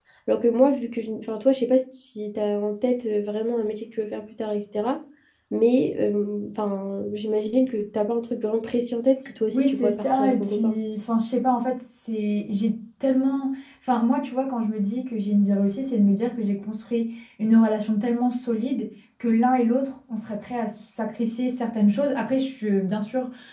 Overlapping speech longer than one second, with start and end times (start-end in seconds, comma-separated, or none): 9.5-10.8